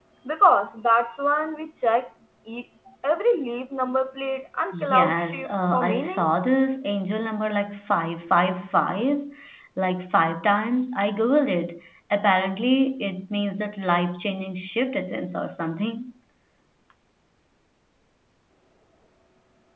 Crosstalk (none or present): present